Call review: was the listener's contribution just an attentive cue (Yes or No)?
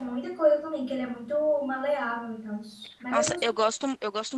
No